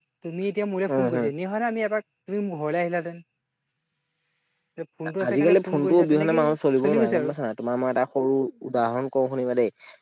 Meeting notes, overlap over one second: present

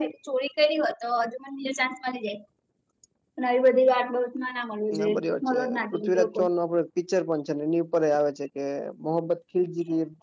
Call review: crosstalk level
present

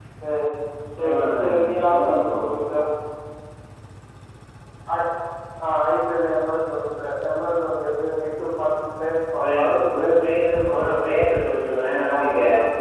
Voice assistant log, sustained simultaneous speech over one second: present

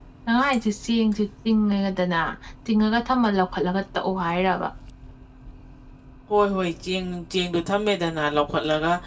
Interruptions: none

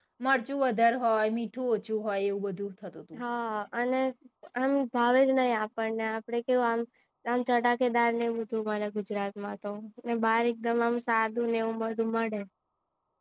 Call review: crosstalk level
none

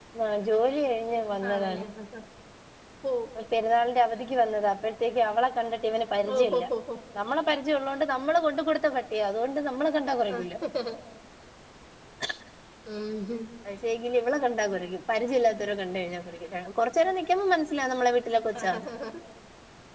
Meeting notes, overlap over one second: none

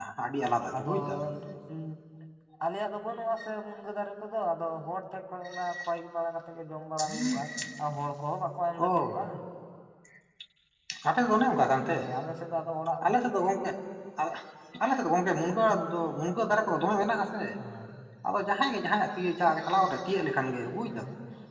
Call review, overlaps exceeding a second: none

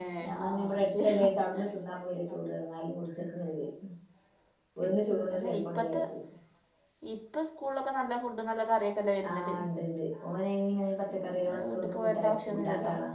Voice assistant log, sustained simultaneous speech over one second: present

